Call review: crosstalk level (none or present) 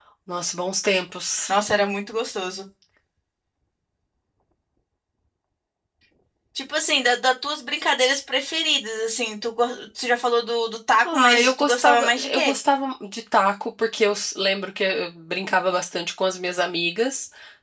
present